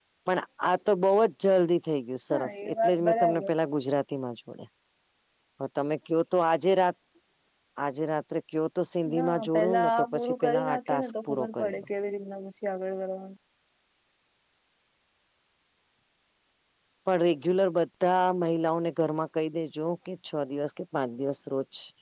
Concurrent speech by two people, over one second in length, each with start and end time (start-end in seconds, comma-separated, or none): 2.3-3.5, 9.1-11.8